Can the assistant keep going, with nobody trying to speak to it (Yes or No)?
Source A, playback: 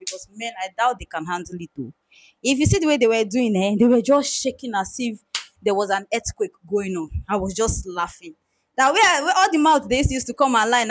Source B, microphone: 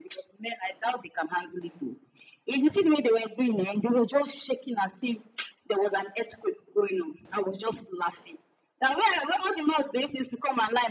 Yes